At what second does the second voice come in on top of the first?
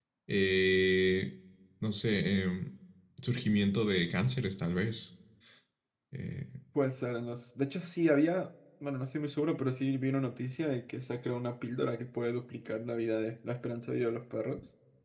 none

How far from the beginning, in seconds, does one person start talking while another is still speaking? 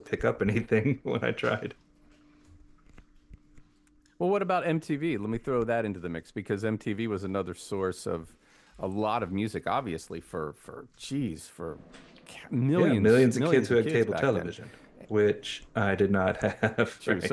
12.8 s

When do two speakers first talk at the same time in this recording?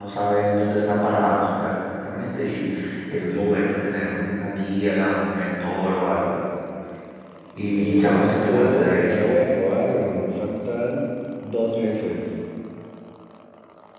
7.7 s

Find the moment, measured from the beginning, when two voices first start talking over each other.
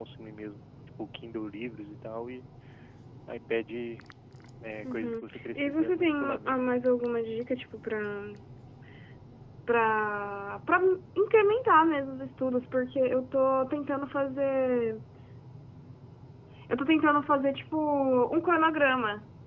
4.8 s

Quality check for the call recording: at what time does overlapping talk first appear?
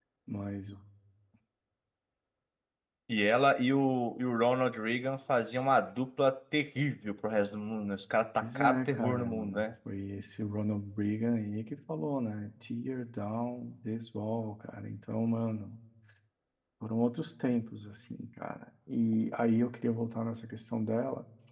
8.4 s

